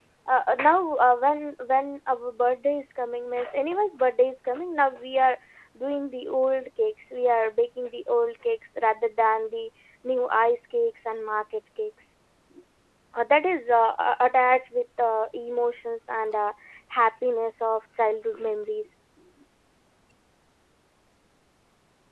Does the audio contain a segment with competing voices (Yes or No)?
No